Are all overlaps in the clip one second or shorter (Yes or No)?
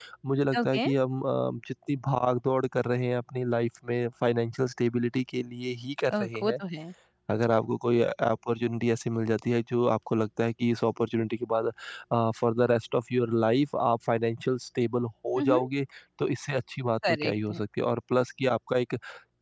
Yes